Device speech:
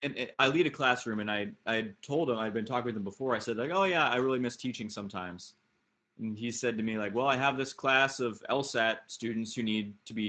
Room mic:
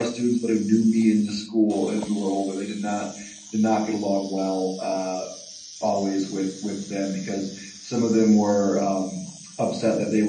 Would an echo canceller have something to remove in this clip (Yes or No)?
No